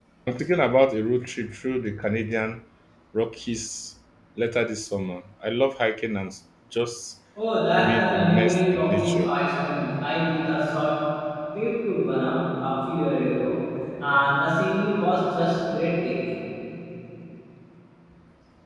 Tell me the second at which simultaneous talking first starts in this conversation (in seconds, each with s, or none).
7.8 s